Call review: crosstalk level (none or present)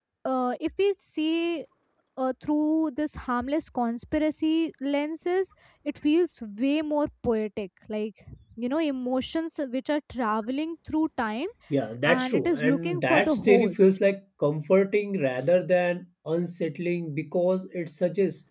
present